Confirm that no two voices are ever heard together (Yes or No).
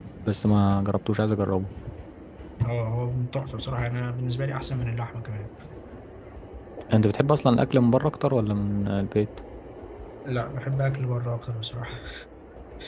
Yes